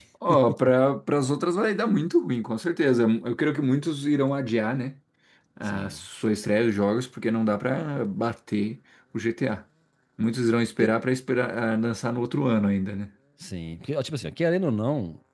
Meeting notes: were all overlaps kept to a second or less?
Yes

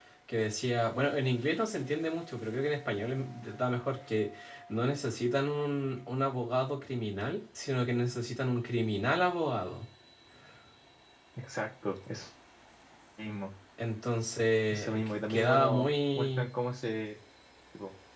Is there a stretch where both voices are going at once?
Yes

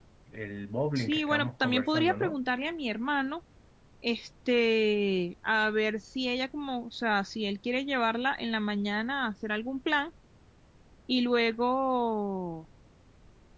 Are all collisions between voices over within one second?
No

